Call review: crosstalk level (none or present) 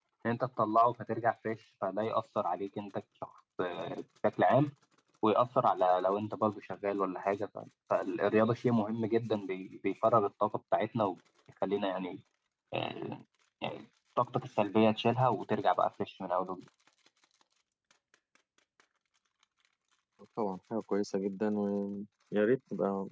none